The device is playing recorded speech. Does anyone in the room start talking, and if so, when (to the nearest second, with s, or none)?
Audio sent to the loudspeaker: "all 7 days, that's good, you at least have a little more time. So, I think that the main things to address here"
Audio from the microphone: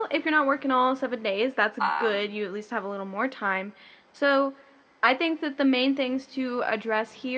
2 s